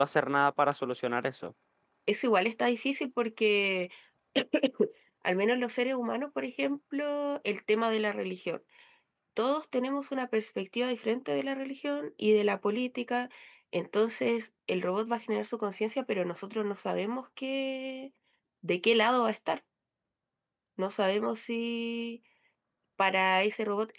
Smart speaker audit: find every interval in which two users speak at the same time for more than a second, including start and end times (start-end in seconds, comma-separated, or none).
none